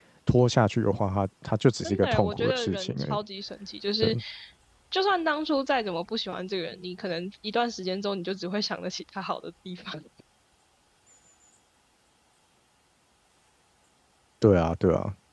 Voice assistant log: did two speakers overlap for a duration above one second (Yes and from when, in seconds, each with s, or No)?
Yes, from 1.8 s